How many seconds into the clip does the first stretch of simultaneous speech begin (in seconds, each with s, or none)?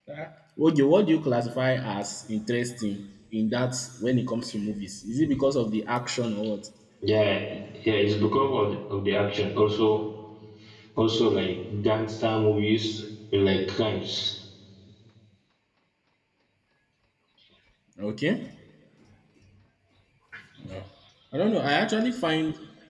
none